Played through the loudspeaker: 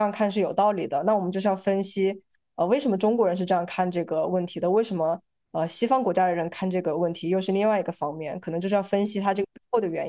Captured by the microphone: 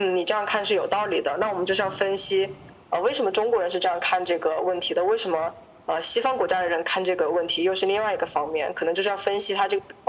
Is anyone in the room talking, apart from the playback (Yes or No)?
No